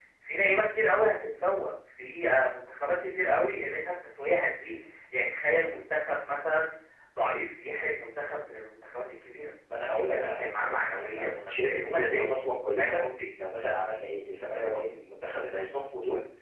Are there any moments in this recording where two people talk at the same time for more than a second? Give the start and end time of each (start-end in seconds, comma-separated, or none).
9.9-12.3